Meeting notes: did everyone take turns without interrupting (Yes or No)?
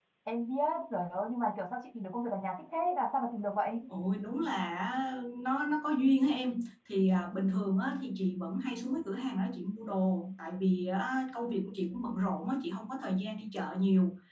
Yes